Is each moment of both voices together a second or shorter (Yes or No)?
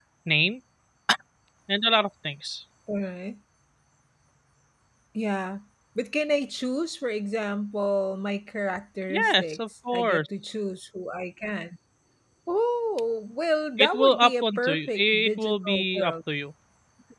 No